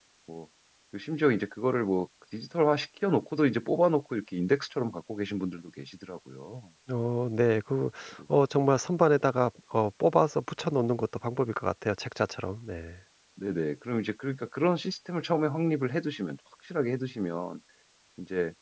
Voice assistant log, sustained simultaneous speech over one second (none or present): none